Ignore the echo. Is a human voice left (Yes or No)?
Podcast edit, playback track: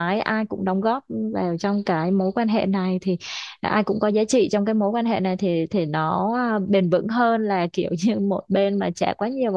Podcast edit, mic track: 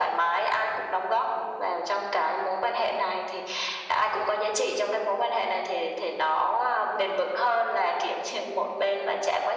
No